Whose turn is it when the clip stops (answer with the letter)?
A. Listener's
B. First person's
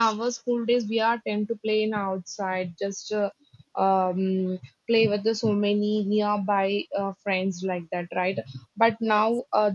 B